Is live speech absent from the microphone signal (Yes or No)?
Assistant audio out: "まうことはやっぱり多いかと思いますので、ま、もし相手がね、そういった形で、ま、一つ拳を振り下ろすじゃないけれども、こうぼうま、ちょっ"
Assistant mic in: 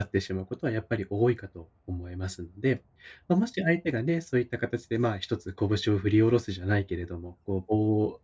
Yes